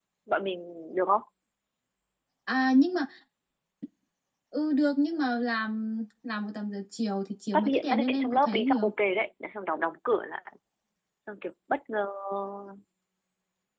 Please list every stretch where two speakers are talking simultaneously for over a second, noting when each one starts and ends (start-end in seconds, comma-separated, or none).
7.5-8.9